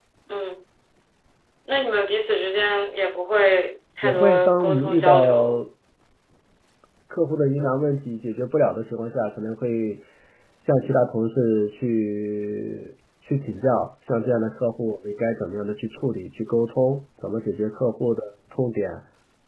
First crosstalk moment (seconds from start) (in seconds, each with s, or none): 4.0 s